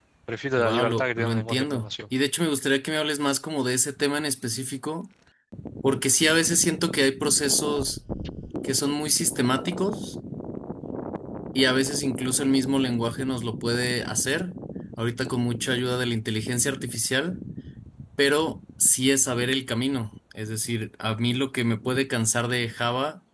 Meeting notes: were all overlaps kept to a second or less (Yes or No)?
No